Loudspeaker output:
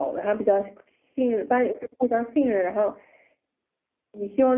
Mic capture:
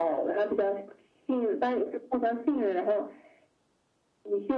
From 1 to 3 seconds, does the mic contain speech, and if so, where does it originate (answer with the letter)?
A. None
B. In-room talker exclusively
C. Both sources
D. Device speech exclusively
D